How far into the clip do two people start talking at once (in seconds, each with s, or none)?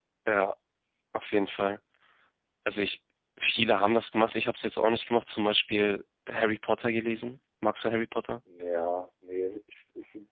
none